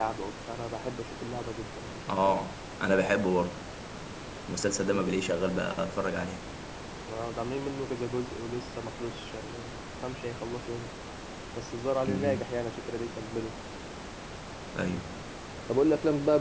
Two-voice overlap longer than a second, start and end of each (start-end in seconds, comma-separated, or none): none